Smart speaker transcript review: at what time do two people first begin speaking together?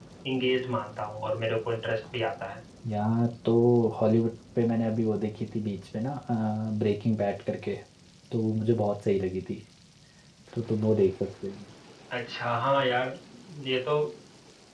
none

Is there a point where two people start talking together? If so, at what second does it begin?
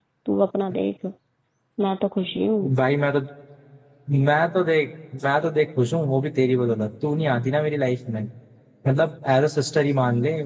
none

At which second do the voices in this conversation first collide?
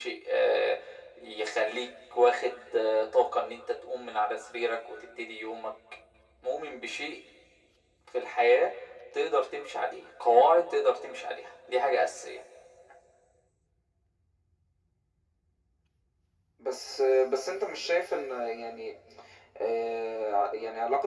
none

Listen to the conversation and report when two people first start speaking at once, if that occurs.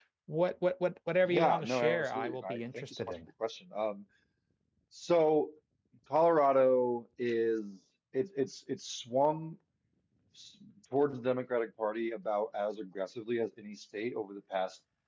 1.3 s

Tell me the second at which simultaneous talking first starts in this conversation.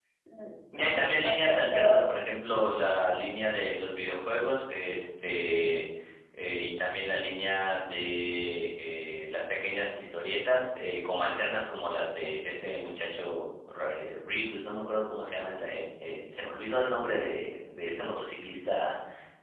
0.8 s

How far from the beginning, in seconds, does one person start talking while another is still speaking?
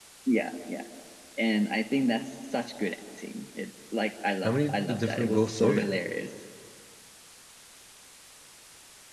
4.4 s

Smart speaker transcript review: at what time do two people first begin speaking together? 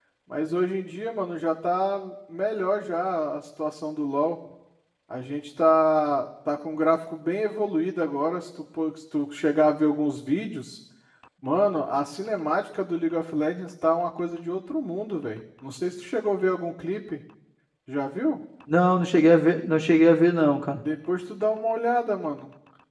none

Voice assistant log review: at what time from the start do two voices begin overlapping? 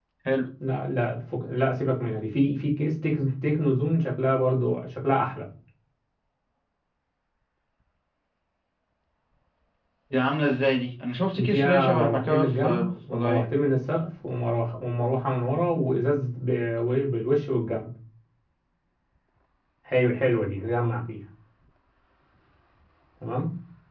11.3 s

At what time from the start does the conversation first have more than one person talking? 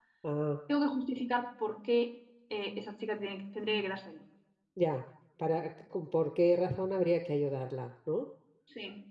none

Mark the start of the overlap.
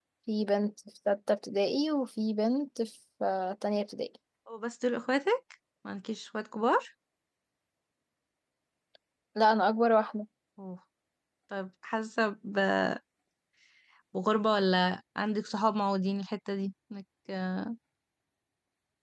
none

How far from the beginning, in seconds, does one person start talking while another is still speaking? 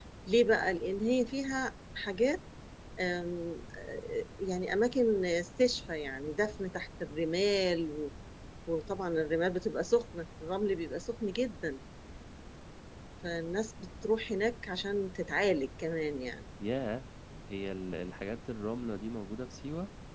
none

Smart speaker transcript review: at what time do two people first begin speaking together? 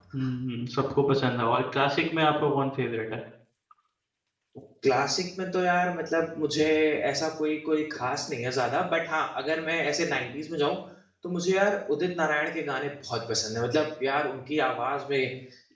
none

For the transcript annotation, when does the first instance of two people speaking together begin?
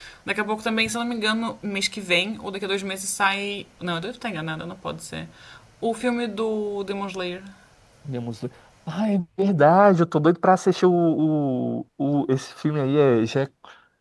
none

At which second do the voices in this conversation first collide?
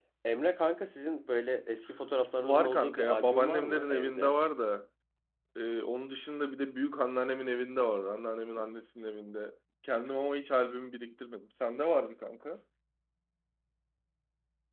2.4 s

